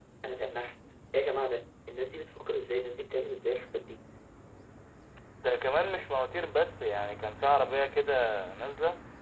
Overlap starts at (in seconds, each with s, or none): none